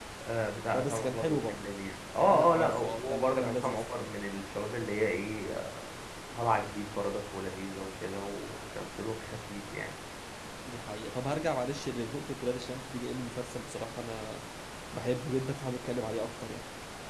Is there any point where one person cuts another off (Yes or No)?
Yes